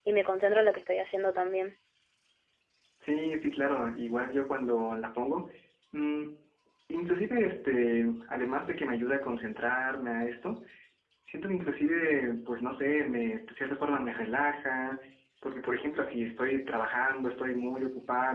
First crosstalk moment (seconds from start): none

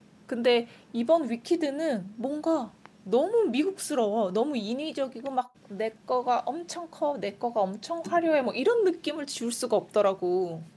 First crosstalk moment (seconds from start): none

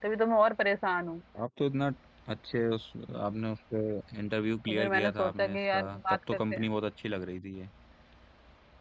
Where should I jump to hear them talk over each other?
4.6 s

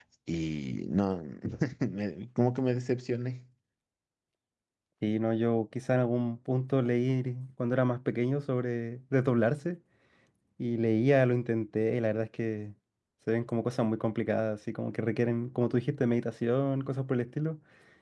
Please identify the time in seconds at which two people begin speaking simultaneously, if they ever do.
none

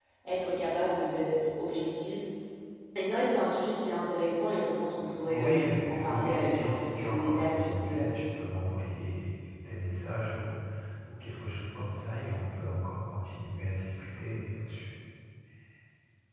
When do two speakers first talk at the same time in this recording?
5.2 s

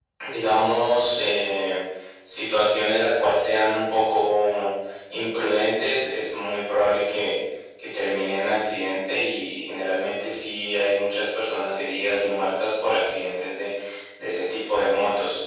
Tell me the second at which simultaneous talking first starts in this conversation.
none

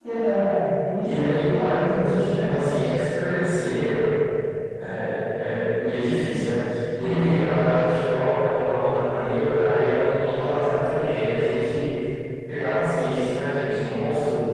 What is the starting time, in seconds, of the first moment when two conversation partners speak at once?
1.0 s

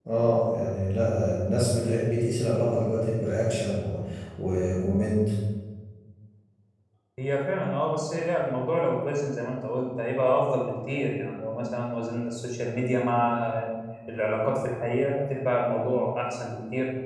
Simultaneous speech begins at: none

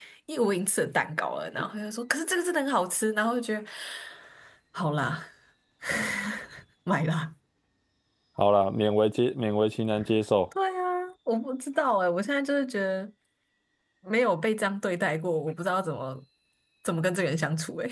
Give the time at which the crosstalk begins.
none

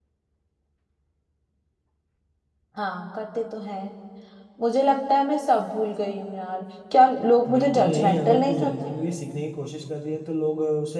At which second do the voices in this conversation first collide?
7.5 s

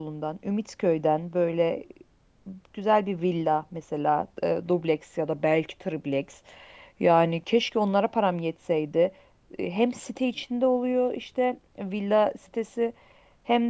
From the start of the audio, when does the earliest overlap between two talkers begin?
none

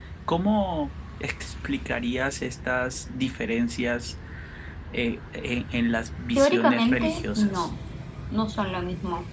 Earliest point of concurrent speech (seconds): 6.3 s

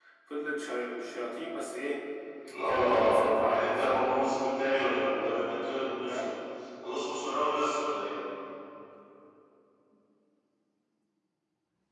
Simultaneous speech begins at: 2.6 s

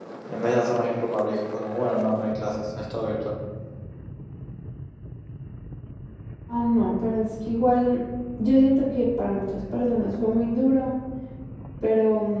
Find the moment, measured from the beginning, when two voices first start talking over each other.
none

